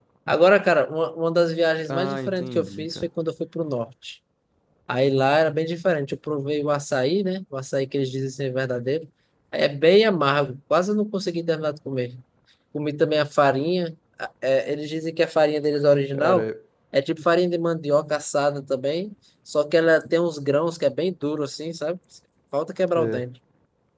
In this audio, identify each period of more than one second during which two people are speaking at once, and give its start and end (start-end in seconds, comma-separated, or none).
1.9-3.1